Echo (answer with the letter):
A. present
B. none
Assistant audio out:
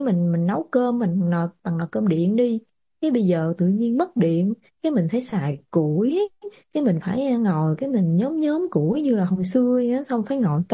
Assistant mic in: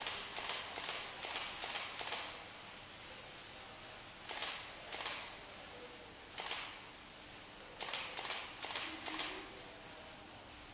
B